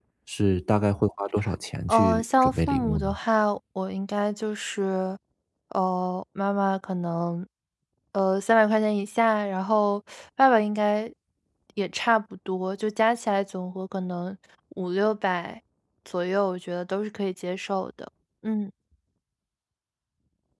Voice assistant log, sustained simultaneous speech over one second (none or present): present